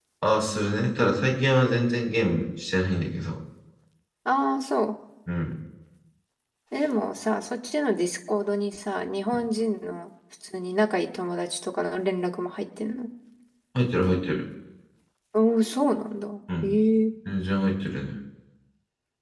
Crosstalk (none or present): none